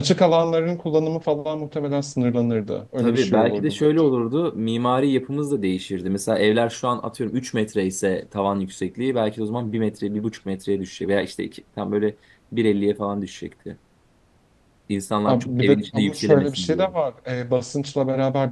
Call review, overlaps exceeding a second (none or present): present